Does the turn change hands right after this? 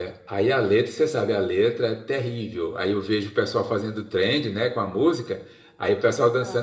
No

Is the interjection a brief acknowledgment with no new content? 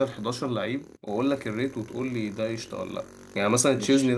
Yes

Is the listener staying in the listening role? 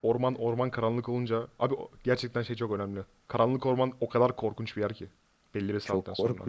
No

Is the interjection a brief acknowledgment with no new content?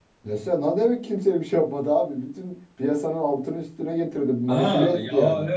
No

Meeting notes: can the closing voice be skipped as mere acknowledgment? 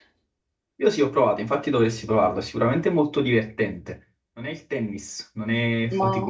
Yes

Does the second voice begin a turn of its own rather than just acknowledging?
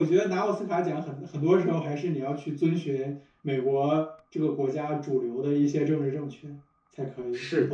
No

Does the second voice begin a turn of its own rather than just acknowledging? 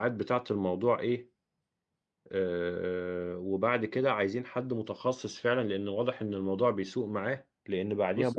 No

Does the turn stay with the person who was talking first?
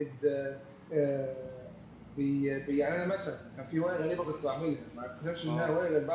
Yes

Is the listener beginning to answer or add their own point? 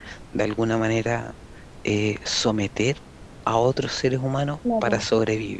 No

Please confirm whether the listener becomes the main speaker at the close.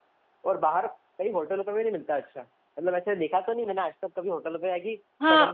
Yes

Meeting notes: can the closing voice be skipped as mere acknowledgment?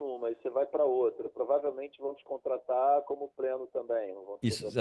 No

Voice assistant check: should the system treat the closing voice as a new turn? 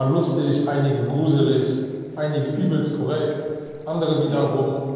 No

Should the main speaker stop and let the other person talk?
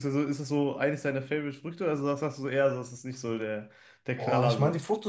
Yes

